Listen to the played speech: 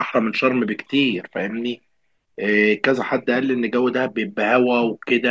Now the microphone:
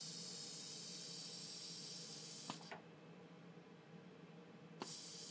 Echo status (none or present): none